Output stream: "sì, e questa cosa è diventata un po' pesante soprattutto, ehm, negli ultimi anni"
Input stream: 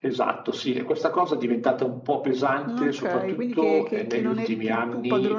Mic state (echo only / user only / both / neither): both